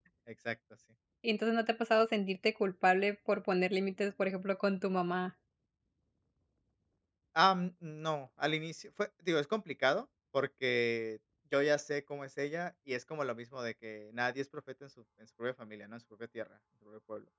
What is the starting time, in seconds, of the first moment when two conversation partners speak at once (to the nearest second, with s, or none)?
none